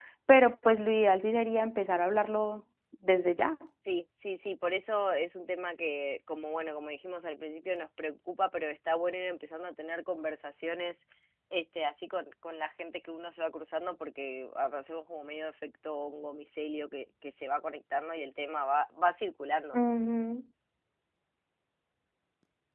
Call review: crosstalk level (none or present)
none